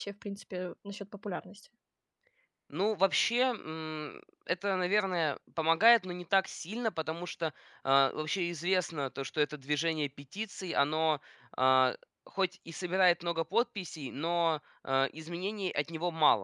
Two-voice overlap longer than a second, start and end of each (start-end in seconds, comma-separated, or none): none